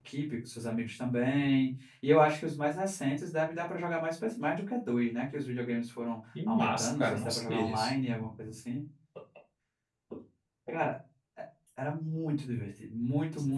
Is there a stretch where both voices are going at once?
Yes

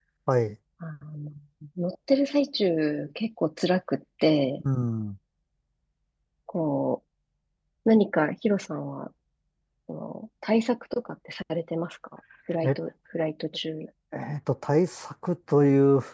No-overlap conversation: Yes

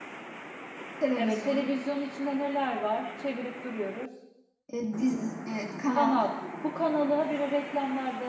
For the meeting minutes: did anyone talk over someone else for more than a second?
No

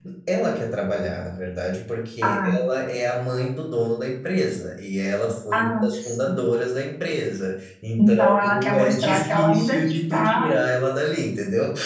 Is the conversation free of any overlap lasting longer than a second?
No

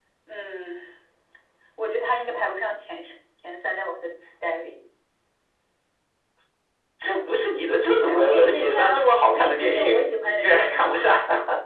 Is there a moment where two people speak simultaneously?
Yes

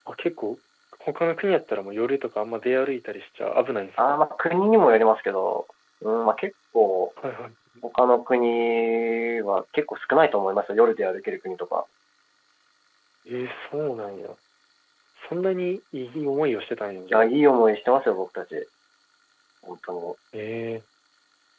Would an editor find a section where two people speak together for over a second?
No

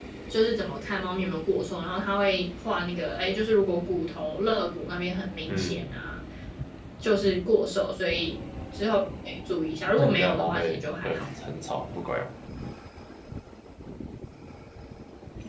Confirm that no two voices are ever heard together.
No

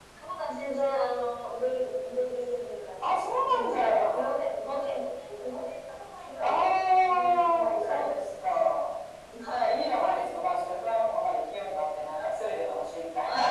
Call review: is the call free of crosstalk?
No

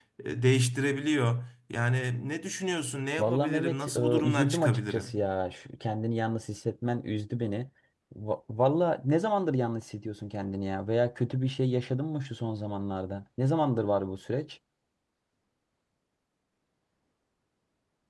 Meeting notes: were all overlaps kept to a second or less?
No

